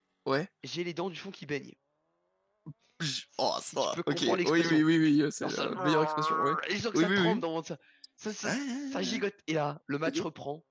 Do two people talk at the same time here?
Yes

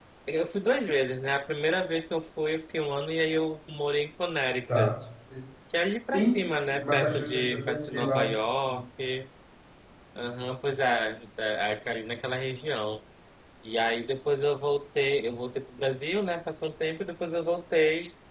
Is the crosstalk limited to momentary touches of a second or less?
No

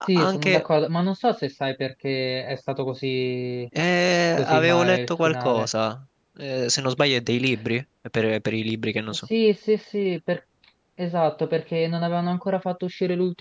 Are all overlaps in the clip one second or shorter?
No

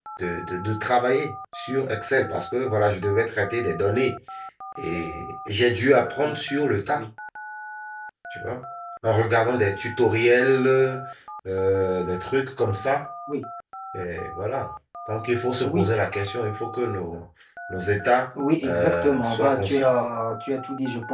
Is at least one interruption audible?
Yes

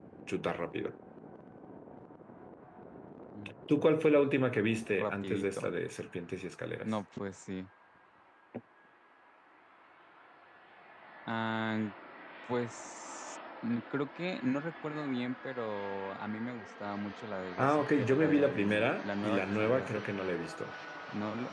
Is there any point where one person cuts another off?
Yes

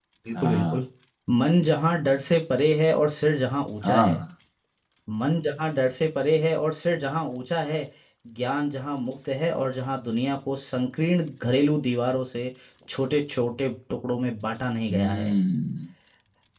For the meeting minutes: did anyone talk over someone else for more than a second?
No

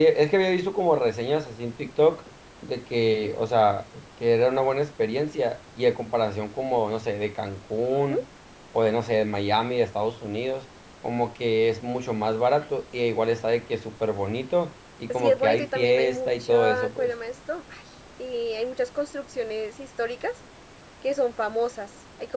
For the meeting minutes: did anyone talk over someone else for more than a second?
Yes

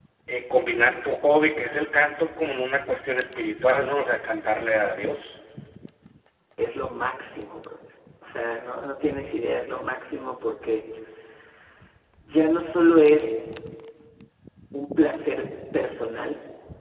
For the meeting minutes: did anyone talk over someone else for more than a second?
No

